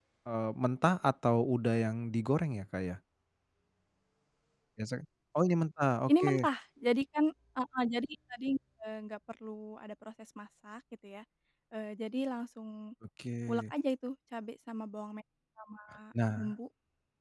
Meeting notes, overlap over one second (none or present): none